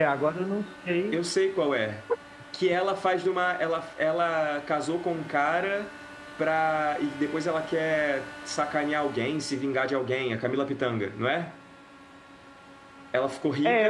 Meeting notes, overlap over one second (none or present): none